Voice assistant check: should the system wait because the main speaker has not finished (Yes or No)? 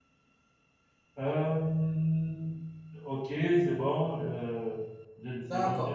No